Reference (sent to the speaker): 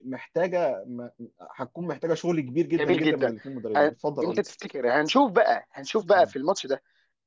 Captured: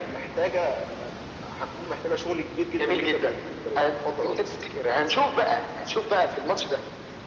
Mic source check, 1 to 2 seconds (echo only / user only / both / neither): echo only